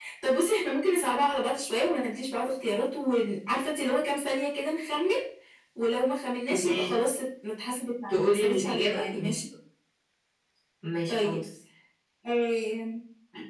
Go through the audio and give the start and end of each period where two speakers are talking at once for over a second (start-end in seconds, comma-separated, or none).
8.1-9.4